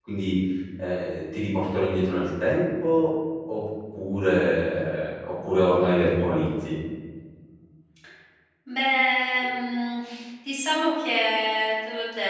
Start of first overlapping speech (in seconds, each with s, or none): none